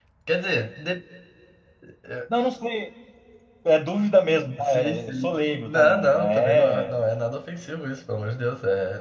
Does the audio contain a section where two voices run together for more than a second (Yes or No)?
Yes